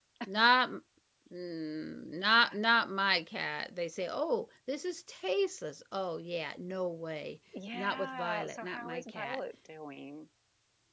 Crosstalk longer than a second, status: present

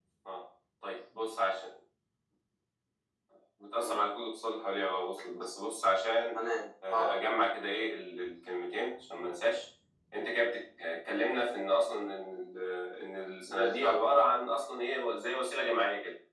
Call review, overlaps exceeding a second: none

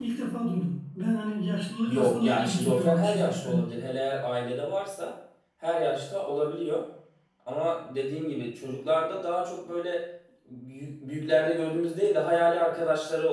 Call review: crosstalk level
present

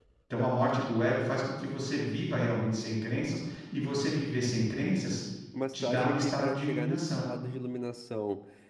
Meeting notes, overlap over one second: present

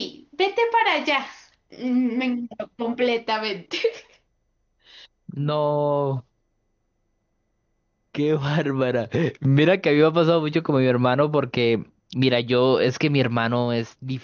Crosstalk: none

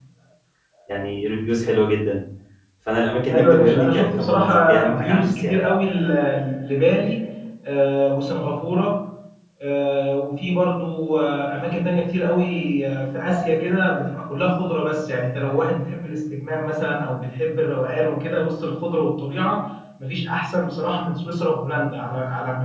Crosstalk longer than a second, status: present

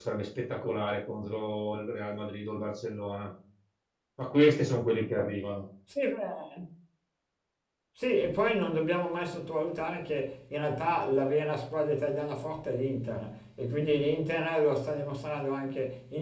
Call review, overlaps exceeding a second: none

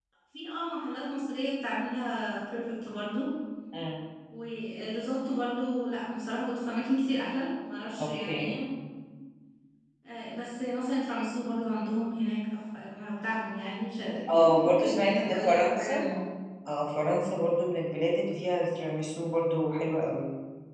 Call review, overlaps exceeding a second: present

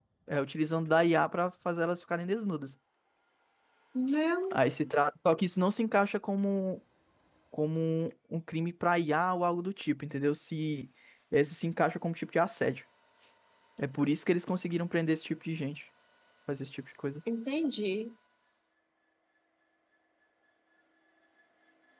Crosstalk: none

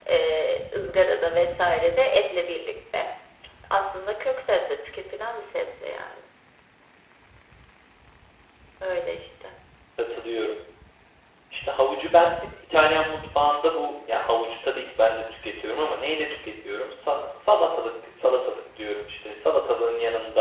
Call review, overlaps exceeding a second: none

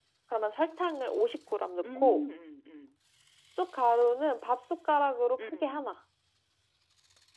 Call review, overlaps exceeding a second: none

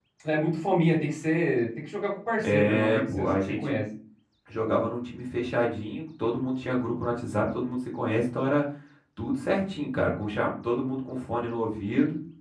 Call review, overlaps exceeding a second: present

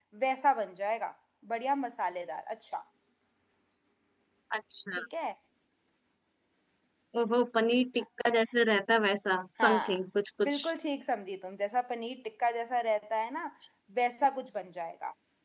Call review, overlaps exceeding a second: none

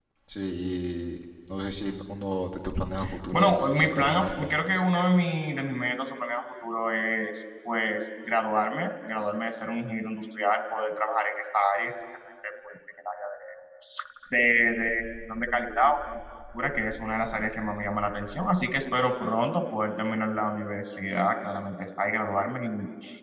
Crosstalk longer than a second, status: present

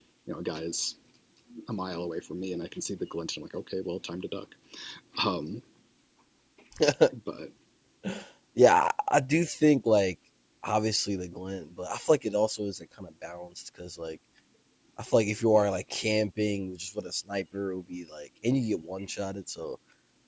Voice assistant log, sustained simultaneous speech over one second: none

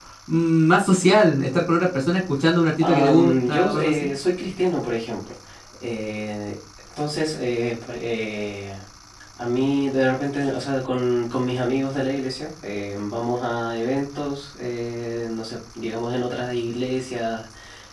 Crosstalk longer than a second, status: present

